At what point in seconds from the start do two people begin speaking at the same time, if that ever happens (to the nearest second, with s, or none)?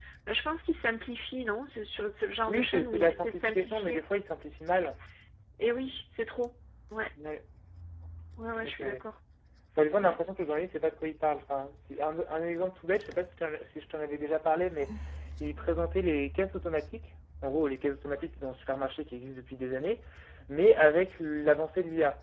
2 s